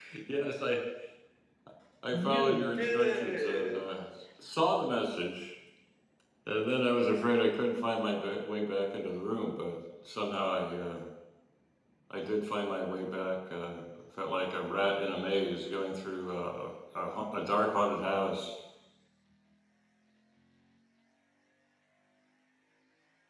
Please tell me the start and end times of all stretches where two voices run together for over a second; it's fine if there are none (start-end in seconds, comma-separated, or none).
2.1-3.8